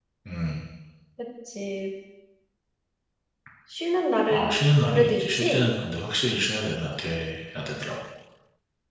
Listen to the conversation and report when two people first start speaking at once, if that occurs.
4.3 s

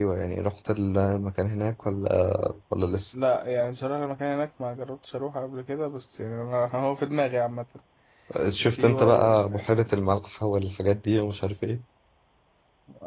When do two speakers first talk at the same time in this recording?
8.7 s

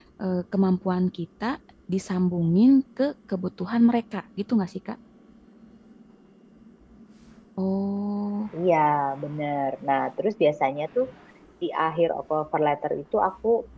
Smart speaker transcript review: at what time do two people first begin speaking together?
none

